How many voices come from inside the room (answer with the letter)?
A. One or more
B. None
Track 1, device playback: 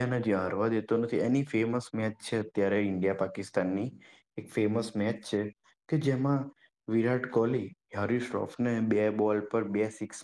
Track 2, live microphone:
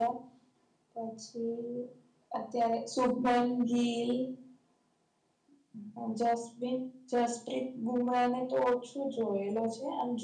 A